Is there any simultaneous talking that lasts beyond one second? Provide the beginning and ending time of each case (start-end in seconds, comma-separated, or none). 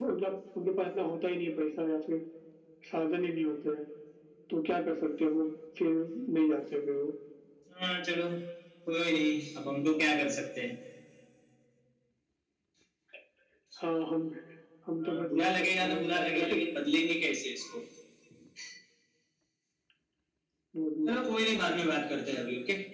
15.0-16.6